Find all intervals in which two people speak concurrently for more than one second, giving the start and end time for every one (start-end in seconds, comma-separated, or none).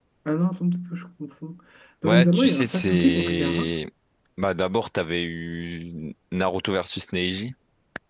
2.0-3.7